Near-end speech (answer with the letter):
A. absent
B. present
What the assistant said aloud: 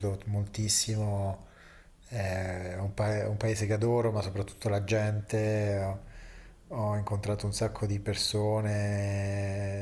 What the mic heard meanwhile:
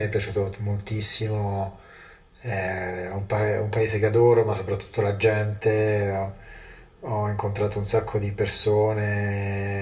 A